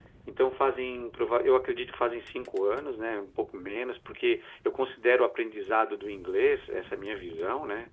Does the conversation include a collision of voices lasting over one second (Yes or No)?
No